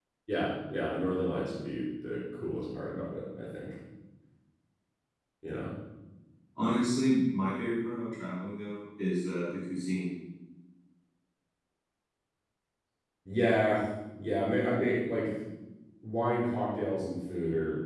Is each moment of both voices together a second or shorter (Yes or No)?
Yes